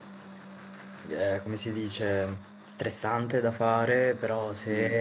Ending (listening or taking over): listening